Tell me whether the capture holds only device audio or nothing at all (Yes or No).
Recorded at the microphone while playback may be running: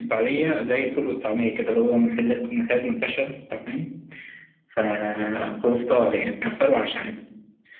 Yes